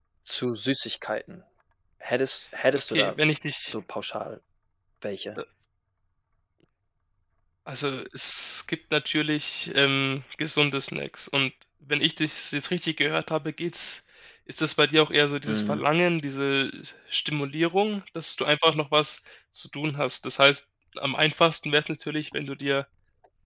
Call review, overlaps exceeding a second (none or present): none